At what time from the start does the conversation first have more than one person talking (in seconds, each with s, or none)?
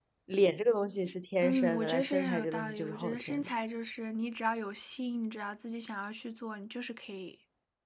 1.4 s